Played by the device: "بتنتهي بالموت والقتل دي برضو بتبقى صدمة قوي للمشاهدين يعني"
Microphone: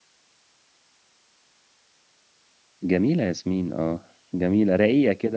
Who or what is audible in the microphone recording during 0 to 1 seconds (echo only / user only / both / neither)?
neither